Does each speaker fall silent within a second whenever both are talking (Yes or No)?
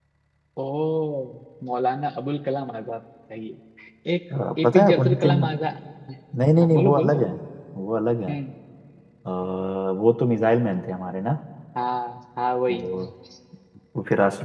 No